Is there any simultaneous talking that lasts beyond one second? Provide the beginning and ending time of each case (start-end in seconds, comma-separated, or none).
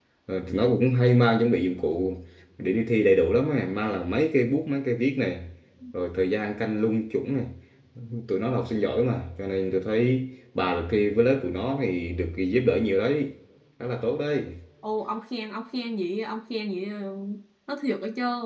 none